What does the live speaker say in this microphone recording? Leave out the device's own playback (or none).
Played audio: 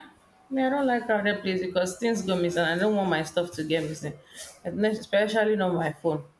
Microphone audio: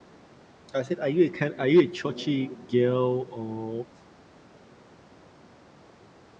I said, are you a kind, are you a churchy girl, or